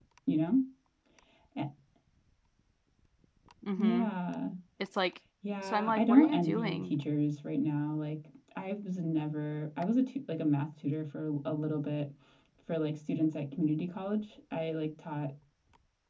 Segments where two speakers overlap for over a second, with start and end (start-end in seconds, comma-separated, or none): 5.6-6.9